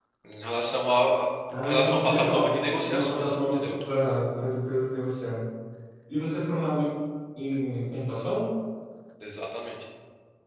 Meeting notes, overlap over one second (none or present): present